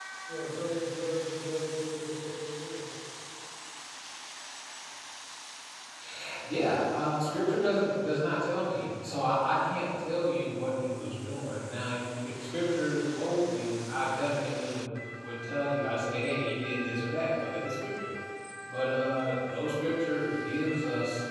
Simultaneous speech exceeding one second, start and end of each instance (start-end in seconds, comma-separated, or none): none